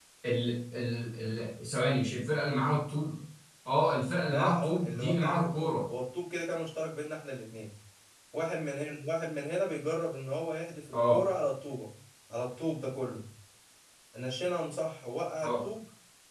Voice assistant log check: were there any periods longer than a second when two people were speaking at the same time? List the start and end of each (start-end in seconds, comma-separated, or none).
4.2-5.8